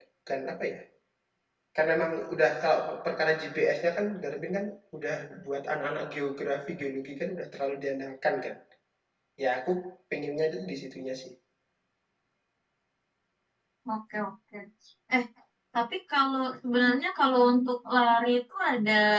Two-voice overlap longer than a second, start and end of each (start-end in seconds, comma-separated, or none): none